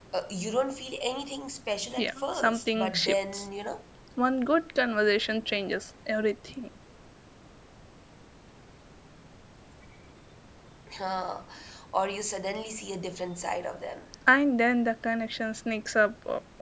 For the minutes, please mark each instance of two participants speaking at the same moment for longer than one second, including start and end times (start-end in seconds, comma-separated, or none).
2.0-3.5